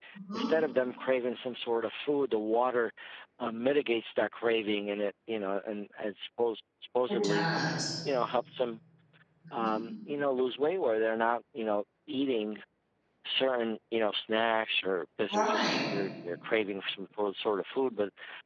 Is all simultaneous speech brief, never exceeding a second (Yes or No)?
Yes